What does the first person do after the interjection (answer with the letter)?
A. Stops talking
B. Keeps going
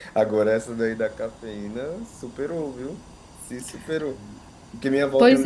B